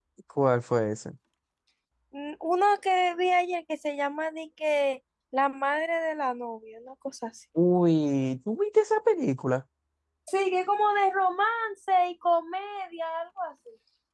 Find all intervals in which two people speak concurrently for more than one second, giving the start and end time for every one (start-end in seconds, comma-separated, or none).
none